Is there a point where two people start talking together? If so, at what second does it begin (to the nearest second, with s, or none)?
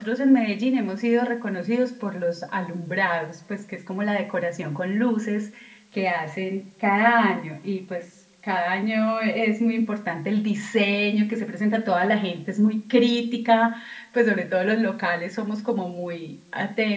none